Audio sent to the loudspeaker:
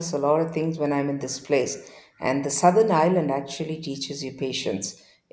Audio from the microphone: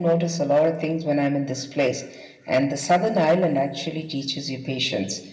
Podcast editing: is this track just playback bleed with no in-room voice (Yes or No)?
Yes